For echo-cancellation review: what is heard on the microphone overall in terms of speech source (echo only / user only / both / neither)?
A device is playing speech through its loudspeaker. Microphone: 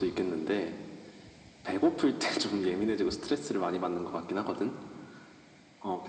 echo only